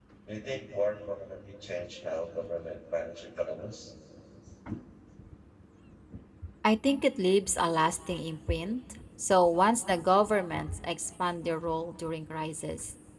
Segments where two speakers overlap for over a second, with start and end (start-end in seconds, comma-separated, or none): none